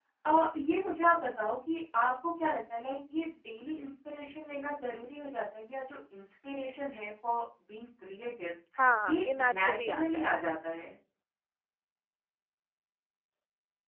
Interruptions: present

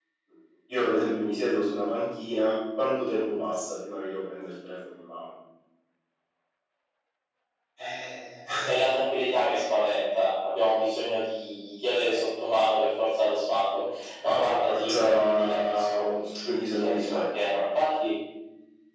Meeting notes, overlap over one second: present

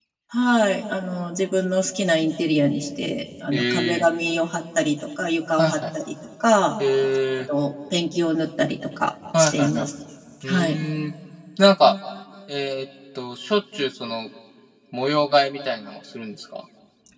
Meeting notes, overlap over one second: none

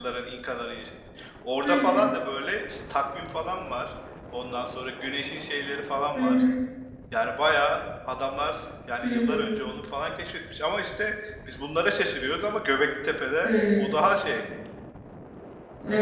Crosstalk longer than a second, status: none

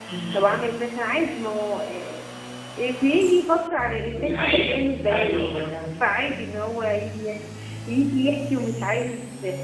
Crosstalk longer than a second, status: present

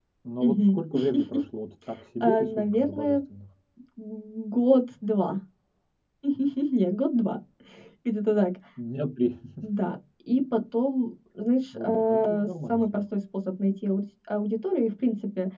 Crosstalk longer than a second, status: present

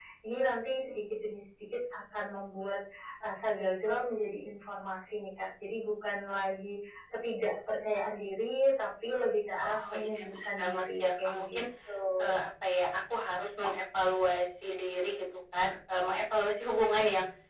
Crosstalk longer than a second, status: present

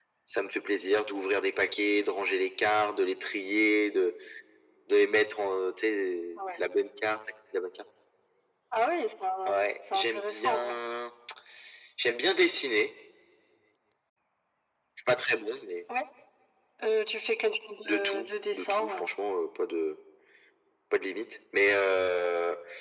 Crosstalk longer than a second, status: present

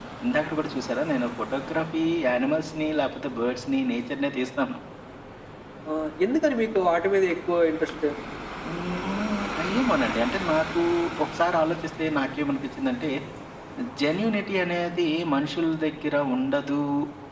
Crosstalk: none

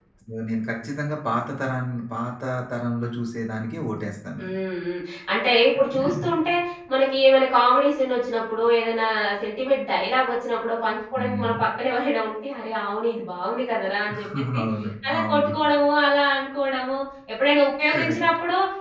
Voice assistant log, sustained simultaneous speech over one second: none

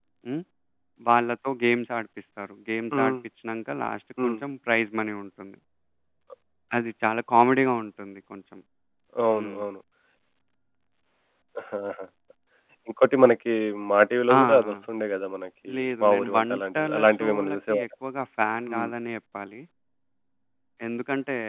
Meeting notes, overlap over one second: present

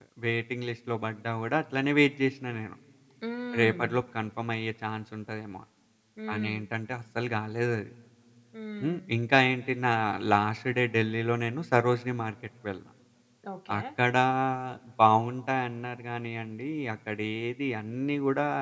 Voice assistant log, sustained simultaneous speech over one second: none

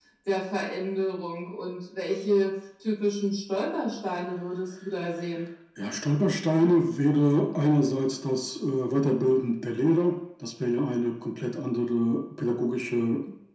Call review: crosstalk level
none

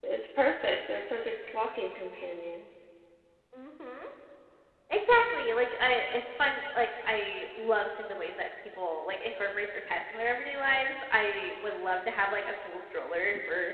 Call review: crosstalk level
none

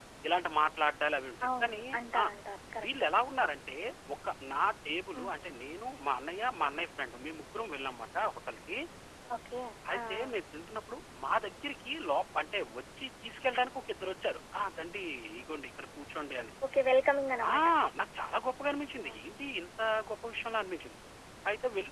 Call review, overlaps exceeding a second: none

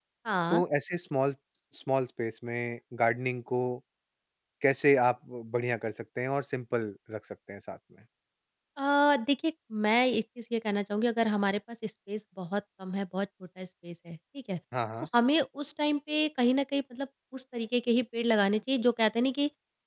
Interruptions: none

